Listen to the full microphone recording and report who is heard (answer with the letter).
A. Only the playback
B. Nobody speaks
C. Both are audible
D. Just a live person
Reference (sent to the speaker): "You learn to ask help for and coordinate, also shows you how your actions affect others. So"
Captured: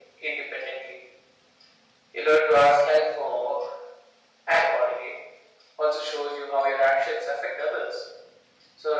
A